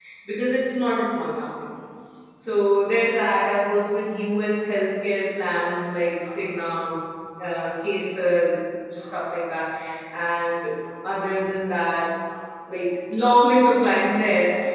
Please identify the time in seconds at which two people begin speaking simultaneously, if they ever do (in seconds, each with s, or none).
none